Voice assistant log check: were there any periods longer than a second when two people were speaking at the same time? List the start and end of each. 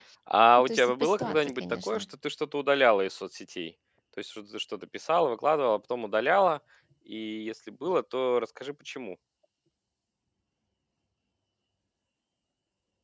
0.6-2.0

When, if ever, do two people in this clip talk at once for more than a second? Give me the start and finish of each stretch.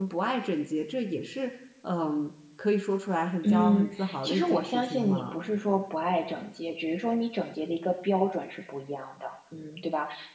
3.4-5.3

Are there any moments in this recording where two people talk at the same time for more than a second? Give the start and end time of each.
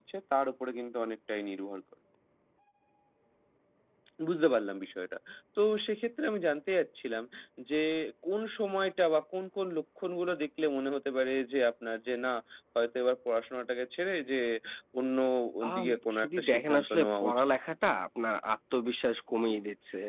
15.8-17.4

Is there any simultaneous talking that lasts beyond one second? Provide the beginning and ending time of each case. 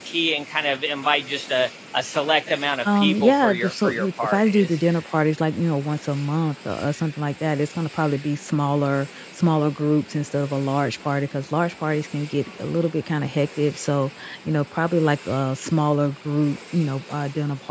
3.0-4.7

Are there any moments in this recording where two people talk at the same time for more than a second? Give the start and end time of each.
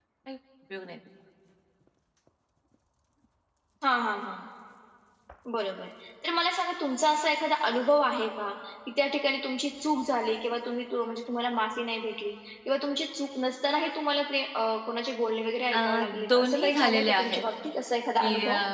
15.7-17.4

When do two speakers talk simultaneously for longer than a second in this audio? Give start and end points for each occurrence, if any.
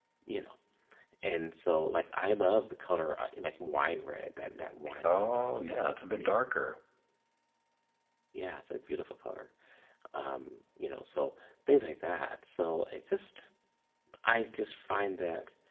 5.0-6.3

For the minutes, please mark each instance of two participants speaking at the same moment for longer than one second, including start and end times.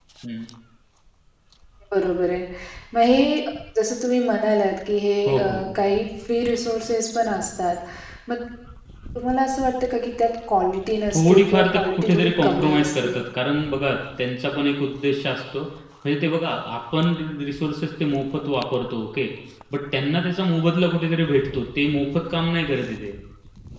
11.1-13.2

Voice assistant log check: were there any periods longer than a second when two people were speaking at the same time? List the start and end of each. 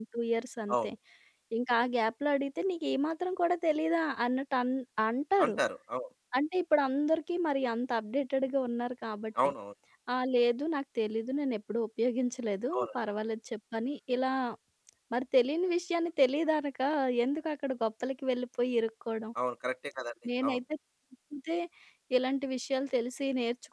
none

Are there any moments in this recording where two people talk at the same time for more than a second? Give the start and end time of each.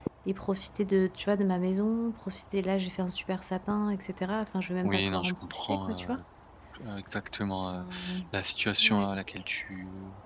4.8-6.2

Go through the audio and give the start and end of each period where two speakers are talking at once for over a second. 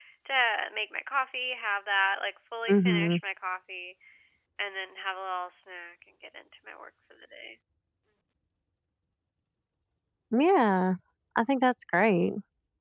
none

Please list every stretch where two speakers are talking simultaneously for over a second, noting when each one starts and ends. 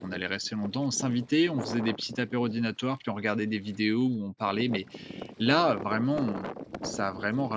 none

